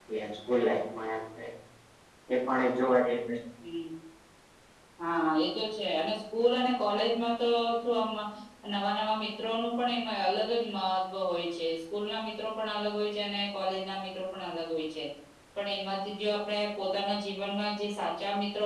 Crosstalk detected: No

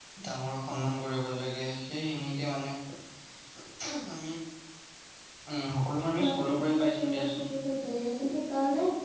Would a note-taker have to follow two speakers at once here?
Yes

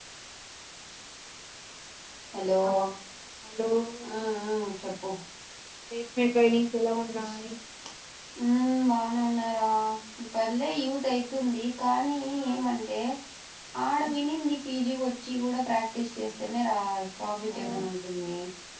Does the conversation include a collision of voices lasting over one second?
No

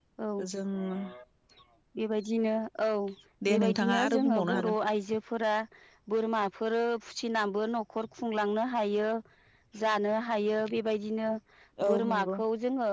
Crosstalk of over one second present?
Yes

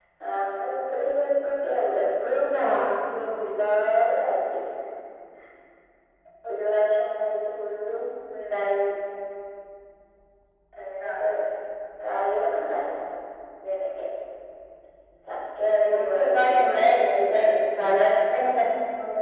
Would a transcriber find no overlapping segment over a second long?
No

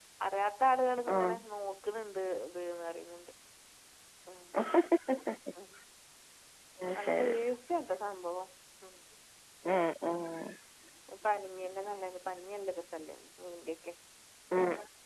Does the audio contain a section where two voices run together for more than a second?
No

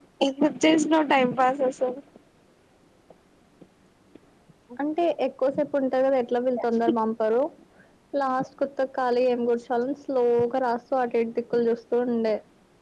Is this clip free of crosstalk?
Yes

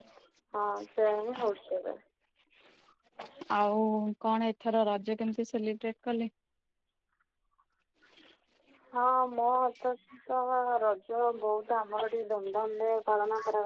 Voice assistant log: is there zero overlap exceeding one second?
Yes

